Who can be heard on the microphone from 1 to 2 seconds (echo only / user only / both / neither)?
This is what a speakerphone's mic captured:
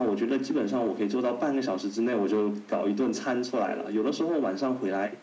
echo only